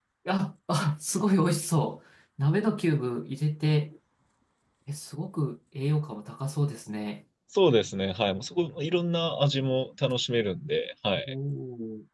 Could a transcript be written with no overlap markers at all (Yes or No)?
Yes